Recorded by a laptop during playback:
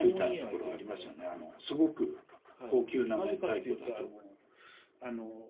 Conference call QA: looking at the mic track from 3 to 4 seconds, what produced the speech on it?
both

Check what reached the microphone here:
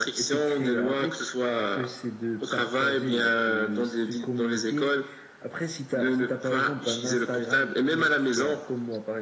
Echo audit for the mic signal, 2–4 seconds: echo only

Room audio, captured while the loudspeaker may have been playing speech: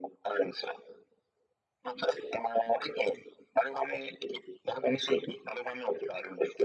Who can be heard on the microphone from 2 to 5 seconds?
echo only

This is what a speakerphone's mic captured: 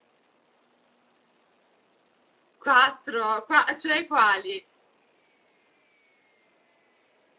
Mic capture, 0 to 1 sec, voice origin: neither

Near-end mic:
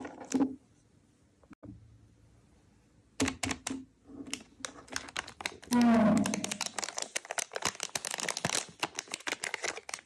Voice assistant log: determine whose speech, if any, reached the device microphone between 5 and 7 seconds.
user only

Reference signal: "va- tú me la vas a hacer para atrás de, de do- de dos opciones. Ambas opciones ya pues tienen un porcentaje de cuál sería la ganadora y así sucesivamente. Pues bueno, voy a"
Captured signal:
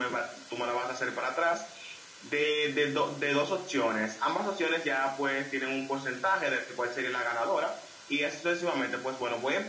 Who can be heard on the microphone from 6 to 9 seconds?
echo only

